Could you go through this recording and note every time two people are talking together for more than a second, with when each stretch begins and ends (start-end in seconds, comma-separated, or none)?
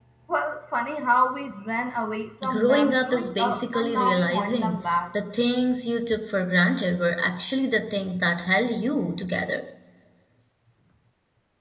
2.5-4.9